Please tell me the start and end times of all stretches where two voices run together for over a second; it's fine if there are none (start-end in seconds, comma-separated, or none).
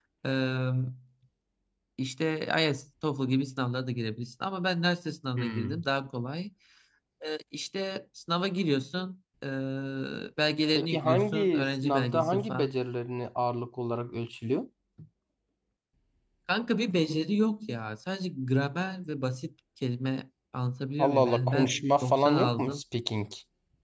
10.8-12.7, 21.0-22.8